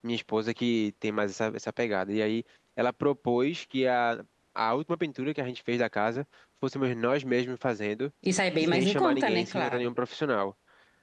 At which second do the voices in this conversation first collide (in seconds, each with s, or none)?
8.6 s